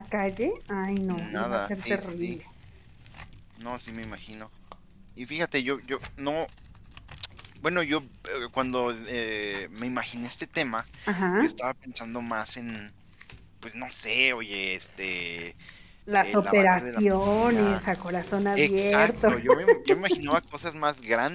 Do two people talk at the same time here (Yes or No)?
Yes